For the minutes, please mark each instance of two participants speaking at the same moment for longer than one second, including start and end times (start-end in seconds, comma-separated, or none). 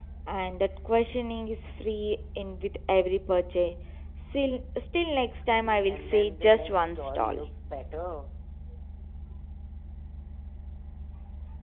5.9-7.4